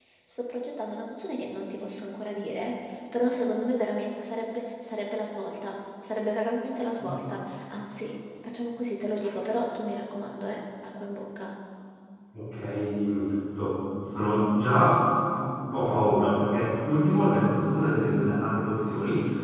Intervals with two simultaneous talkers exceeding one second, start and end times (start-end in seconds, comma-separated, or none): none